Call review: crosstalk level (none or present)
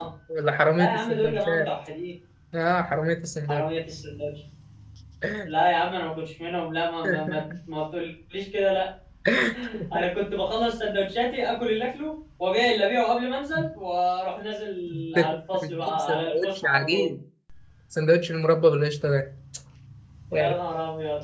present